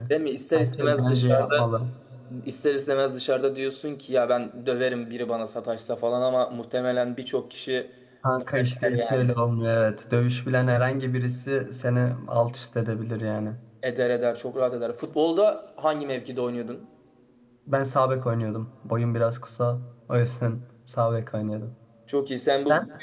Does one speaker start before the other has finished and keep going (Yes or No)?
Yes